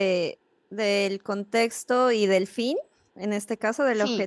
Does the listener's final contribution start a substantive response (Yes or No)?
Yes